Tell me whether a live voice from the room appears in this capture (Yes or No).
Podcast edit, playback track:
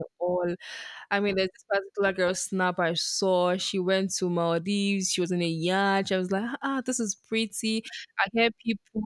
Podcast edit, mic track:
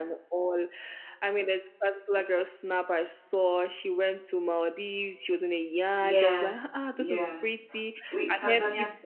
Yes